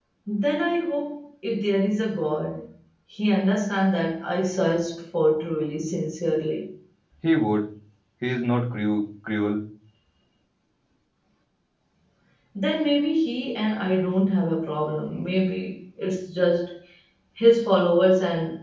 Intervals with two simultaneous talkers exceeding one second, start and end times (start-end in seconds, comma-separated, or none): none